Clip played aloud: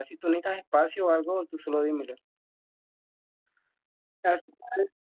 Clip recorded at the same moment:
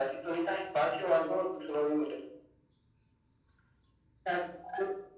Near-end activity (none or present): none